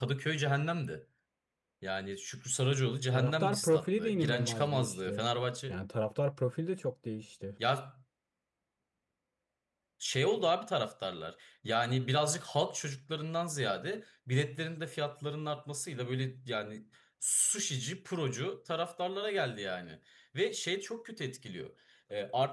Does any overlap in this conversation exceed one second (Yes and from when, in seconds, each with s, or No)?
Yes, from 3.1 s